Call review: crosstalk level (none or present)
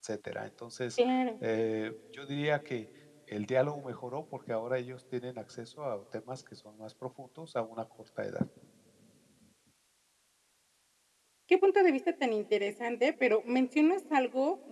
none